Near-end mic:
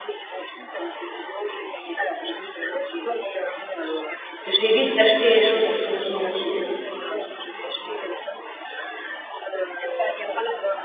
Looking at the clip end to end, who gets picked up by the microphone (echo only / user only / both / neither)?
both